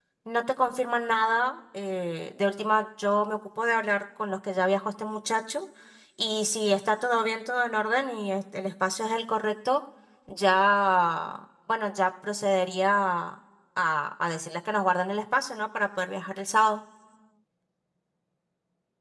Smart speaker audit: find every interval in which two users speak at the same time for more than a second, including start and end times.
none

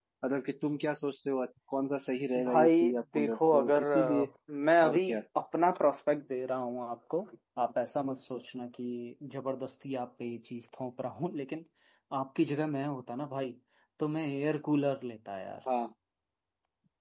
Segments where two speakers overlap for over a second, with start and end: 2.4-4.3

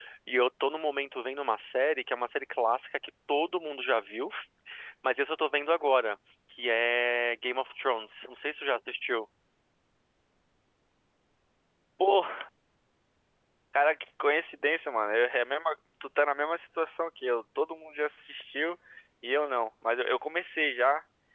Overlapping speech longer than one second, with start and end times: none

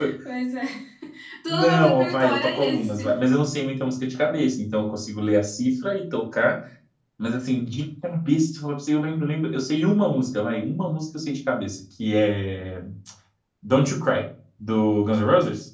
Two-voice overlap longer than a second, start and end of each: 1.5-3.2

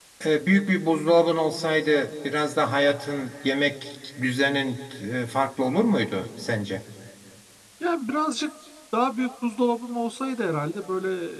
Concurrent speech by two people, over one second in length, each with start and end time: none

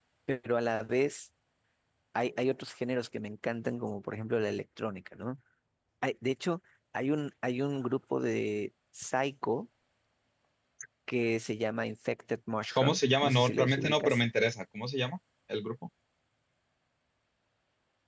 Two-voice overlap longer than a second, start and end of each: 12.8-14.2

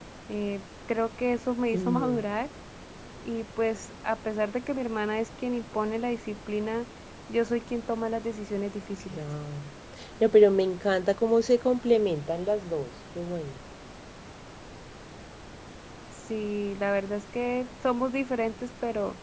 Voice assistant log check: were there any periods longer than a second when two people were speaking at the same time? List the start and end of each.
none

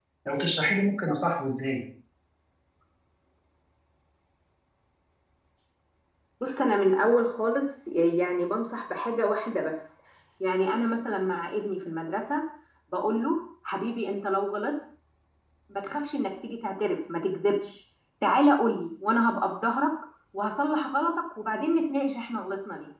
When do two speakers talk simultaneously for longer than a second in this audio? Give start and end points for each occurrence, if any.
none

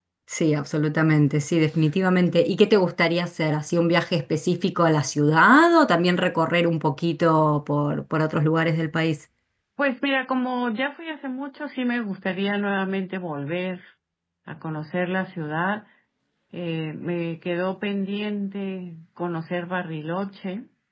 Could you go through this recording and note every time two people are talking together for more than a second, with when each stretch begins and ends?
none

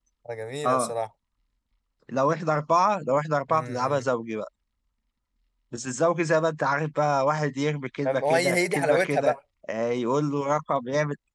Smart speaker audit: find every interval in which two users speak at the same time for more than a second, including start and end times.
8.1-9.3

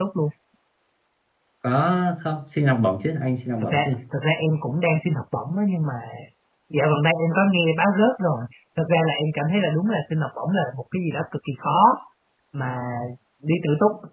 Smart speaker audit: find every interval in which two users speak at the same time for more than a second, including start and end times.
none

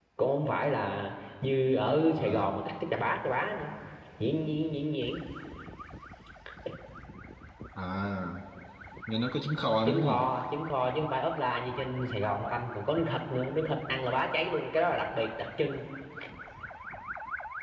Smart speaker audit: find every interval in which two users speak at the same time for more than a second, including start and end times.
none

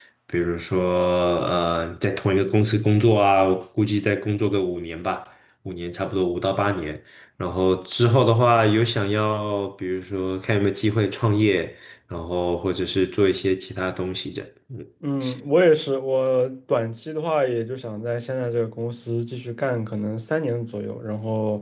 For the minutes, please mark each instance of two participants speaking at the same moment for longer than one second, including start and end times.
none

